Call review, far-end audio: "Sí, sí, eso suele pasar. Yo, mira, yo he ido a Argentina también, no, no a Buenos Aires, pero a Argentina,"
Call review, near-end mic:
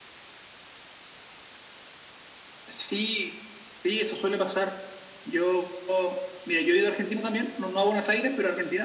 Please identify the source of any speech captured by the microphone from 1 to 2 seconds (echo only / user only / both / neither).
neither